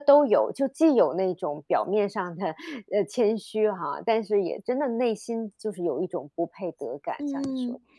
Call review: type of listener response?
taking over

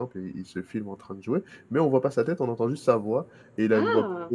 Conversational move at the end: listening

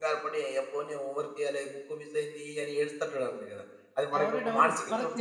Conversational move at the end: taking over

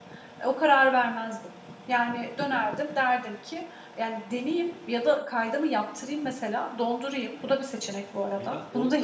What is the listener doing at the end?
taking over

